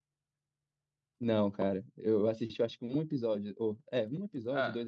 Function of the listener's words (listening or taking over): taking over